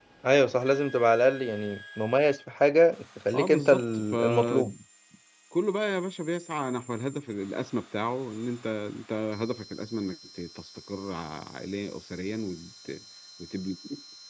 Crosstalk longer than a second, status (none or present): present